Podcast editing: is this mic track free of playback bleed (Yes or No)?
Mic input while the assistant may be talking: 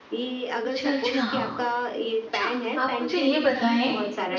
No